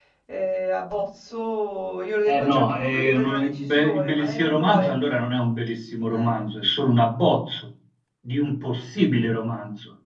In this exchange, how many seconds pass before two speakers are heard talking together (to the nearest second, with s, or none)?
2 s